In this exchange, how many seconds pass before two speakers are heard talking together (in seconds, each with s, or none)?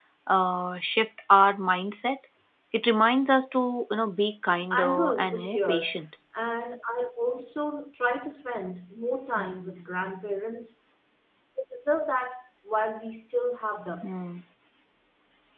4.7 s